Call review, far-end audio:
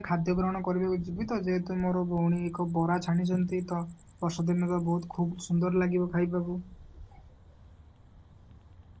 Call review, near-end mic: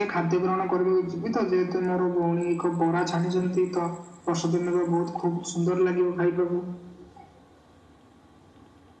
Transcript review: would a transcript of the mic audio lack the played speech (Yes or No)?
No